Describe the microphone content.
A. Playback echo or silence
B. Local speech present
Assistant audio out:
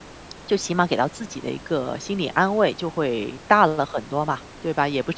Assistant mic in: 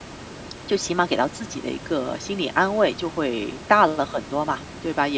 A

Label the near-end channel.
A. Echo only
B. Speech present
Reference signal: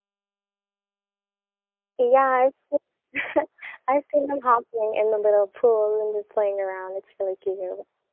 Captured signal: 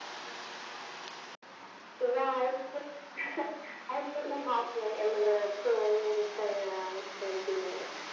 A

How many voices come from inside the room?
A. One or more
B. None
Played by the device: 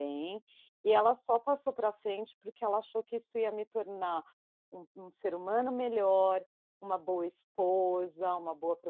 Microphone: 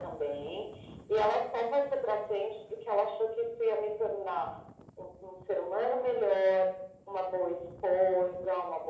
B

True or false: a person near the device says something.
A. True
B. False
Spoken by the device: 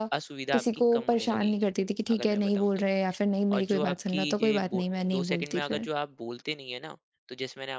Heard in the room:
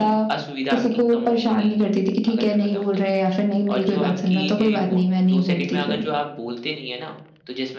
B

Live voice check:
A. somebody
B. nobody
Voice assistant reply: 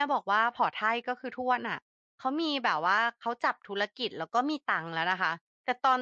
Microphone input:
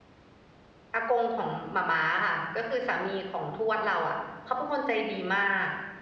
A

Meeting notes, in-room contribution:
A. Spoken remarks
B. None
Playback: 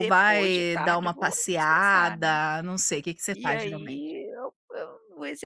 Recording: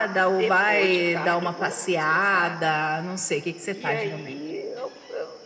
B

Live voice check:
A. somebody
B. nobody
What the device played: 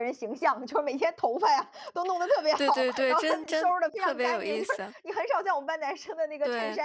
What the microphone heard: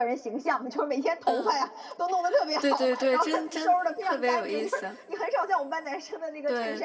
A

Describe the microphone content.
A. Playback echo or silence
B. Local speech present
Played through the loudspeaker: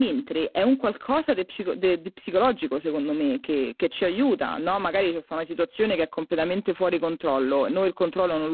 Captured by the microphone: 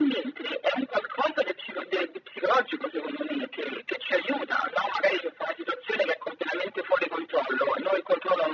A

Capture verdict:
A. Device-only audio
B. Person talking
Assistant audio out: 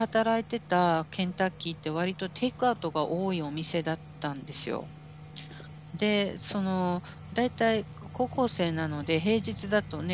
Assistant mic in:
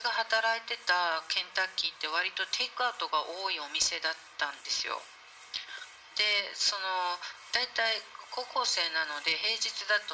A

